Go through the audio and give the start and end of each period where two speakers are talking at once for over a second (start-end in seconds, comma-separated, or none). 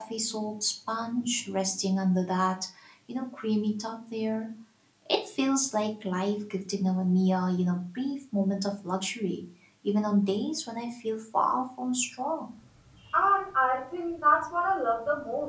none